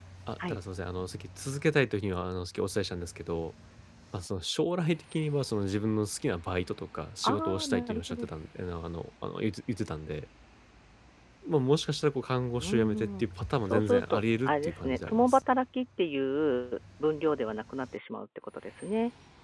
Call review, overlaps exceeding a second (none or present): present